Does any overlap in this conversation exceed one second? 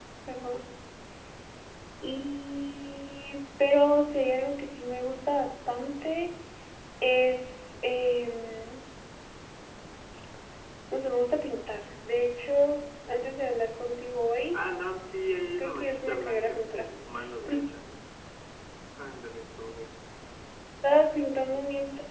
Yes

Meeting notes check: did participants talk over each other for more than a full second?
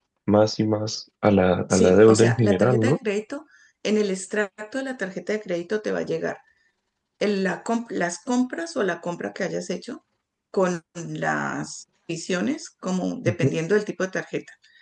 Yes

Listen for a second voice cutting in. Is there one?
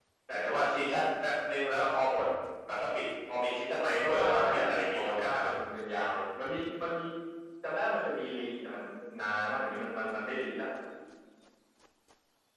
Yes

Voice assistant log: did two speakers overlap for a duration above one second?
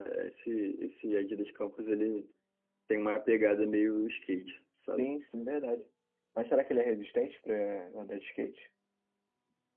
No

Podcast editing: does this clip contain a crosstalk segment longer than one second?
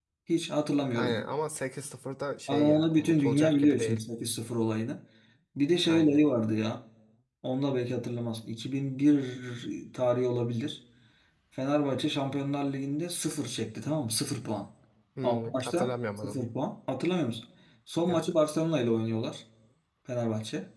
Yes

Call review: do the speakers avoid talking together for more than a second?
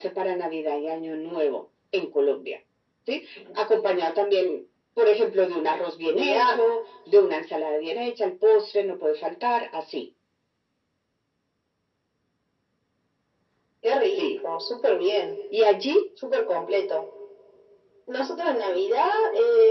Yes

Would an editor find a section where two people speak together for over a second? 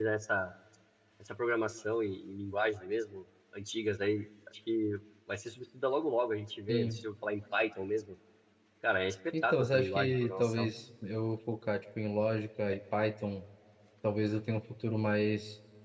Yes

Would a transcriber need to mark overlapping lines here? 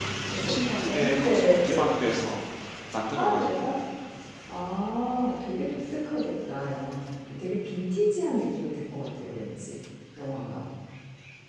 Yes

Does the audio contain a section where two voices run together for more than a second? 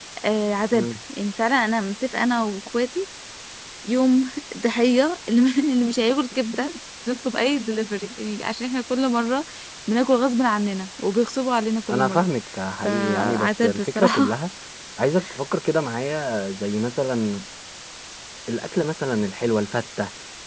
Yes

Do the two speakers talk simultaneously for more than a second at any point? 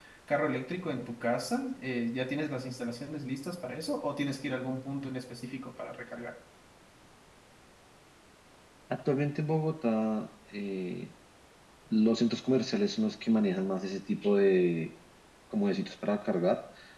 No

